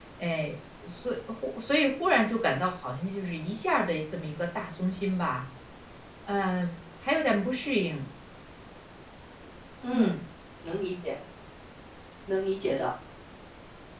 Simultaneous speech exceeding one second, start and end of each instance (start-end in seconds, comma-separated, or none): none